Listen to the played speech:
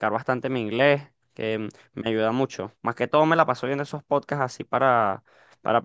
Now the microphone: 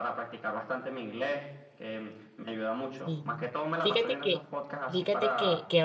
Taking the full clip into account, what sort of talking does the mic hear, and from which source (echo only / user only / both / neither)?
both